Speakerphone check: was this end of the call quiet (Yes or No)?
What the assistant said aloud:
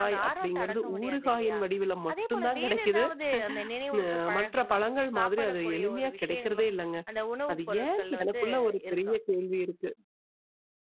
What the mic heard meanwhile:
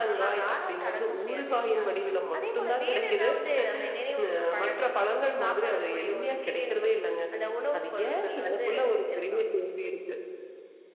Yes